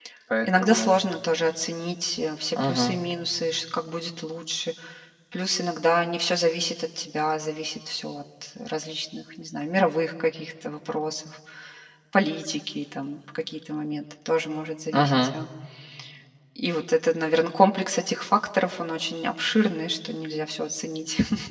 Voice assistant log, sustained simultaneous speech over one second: none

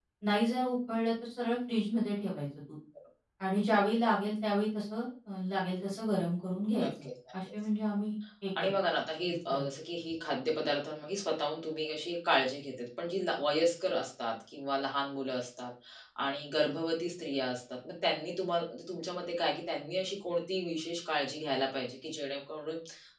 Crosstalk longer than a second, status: none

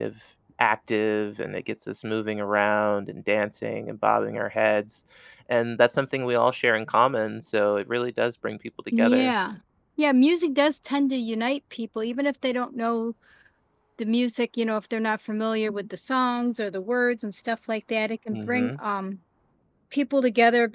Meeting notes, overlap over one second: none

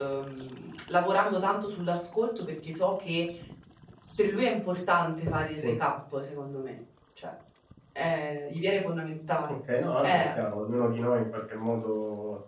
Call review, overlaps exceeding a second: none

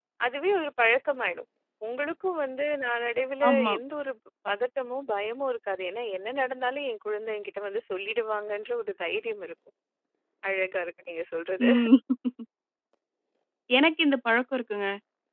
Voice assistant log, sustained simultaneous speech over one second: none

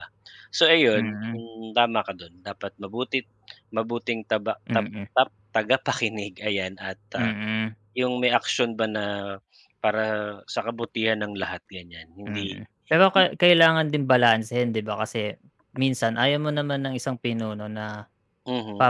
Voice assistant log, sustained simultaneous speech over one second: none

